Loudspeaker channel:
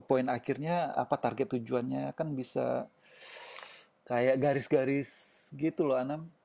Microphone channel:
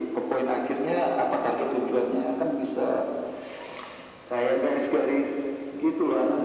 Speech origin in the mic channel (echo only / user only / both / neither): echo only